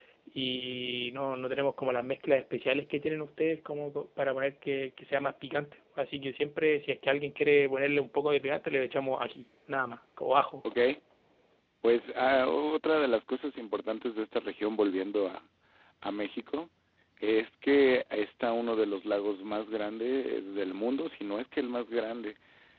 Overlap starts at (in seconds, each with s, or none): none